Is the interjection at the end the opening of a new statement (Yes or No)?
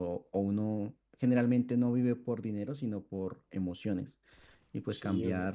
Yes